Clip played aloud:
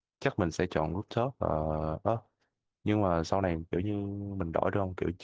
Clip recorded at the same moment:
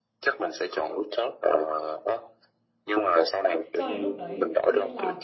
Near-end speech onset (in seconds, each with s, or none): 3.7 s